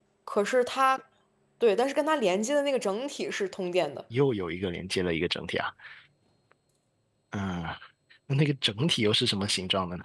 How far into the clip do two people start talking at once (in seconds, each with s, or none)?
none